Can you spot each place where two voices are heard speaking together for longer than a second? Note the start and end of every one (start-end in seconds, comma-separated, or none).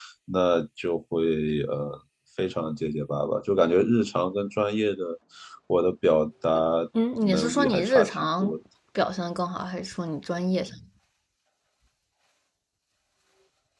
7.3-8.5